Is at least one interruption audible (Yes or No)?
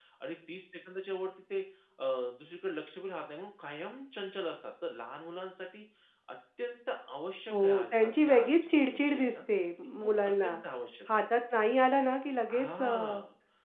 Yes